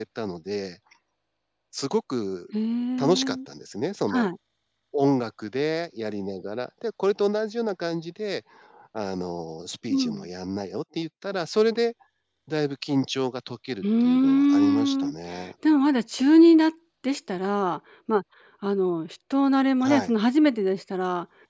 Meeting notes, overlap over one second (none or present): present